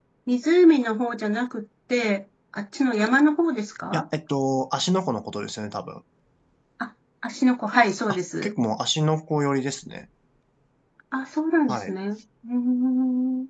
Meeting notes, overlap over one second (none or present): none